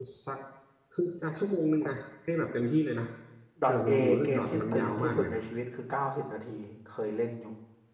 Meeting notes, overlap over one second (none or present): present